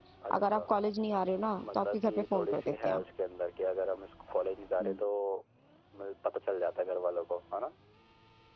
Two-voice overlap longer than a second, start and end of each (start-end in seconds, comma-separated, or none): 1.6-3.0